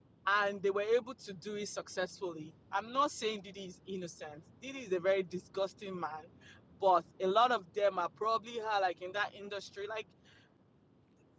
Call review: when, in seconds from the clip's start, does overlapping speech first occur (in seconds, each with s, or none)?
none